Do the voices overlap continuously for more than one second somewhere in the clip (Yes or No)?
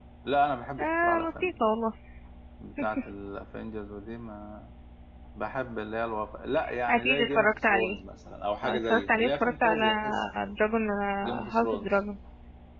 Yes